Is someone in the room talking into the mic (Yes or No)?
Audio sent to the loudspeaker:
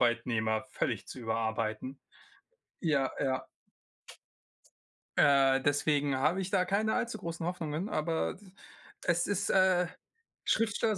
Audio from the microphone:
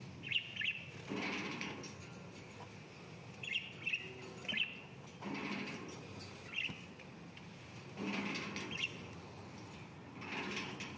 No